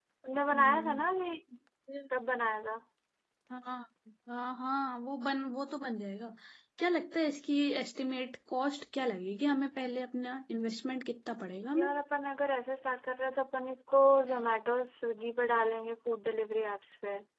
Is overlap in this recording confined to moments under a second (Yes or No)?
Yes